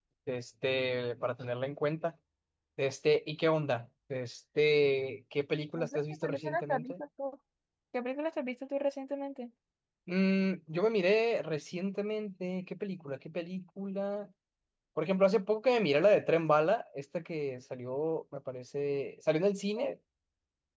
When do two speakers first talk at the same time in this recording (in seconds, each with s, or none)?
5.7 s